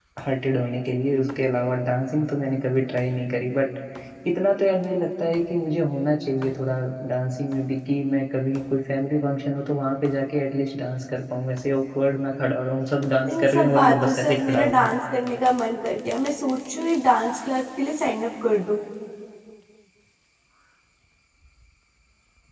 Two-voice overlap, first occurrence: 13 s

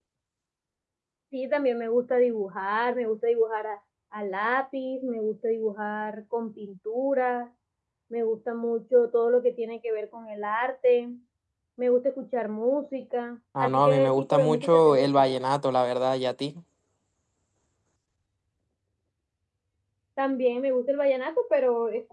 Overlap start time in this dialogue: 14 s

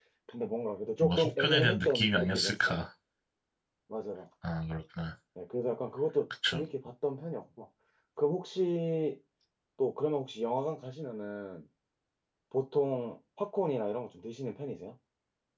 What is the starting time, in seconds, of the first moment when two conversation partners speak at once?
1 s

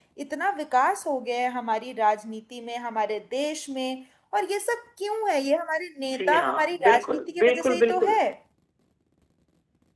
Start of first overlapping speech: 6 s

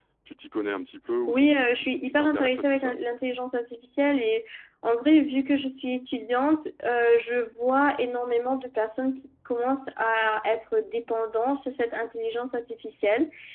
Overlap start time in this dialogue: 1 s

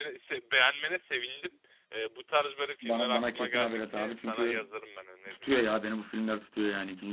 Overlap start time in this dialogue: 3 s

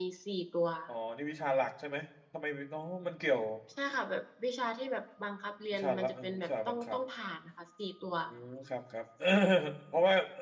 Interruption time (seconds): 6 s

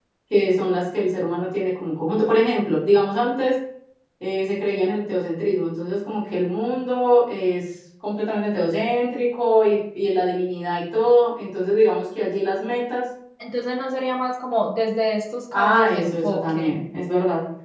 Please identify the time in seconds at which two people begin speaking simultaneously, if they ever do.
16 s

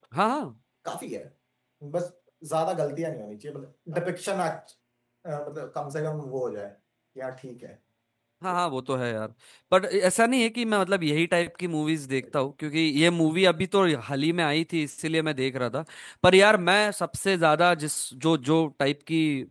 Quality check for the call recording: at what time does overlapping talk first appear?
none

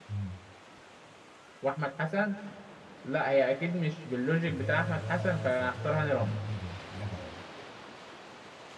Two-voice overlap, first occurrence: 4 s

